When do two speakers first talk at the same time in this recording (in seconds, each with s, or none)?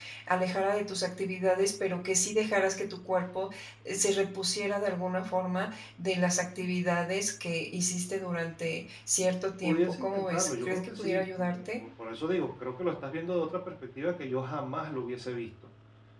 9.6 s